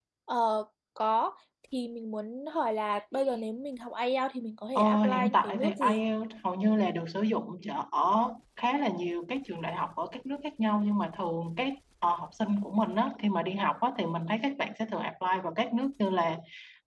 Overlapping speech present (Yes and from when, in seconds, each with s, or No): Yes, from 4.8 s